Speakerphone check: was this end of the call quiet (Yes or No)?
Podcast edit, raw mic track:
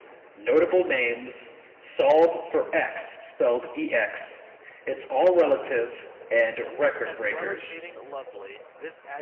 No